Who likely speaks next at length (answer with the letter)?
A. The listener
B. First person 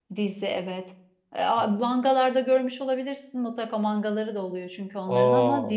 B